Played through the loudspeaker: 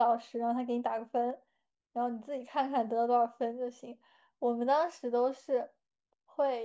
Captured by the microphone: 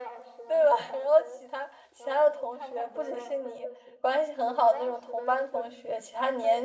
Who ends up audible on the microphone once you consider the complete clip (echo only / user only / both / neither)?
both